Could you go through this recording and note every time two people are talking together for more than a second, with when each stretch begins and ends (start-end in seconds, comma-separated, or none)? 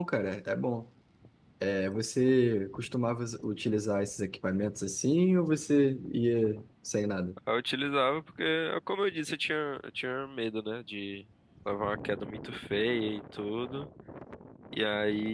none